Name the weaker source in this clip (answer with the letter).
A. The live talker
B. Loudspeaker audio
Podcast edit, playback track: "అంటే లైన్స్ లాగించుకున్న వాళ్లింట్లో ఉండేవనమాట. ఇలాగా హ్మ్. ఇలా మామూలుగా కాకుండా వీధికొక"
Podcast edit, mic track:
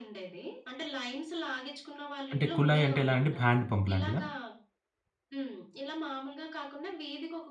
B